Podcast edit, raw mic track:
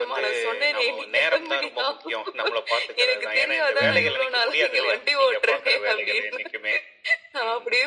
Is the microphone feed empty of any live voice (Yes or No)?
No